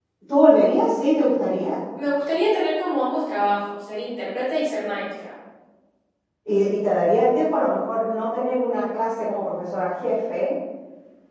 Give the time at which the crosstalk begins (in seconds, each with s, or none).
none